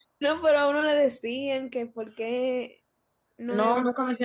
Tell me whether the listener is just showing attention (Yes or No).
No